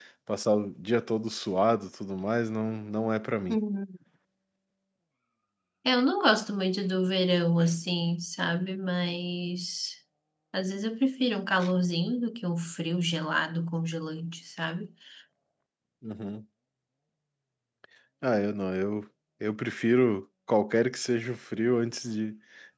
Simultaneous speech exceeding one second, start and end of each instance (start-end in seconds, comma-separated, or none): none